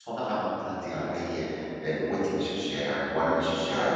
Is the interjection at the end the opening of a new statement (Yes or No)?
Yes